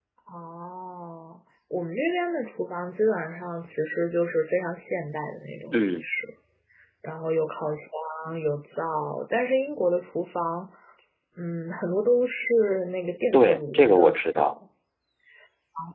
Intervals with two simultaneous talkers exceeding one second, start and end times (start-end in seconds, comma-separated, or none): 13.3-14.5